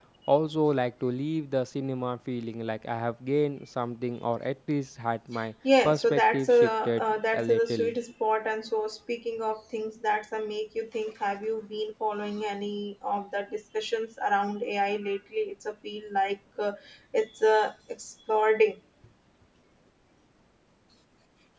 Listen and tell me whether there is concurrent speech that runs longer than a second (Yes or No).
Yes